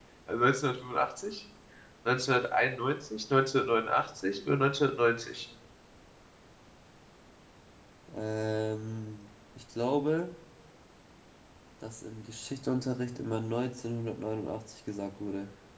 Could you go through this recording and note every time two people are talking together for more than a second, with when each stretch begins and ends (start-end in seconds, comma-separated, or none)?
none